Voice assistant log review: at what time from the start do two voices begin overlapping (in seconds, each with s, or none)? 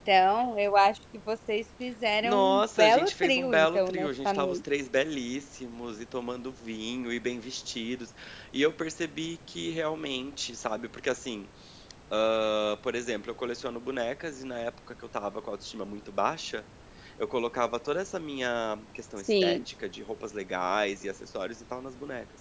2.2 s